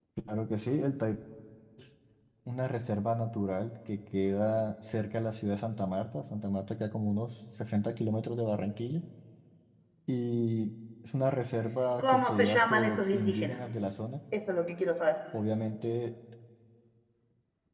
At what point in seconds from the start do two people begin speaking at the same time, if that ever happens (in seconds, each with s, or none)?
12.0 s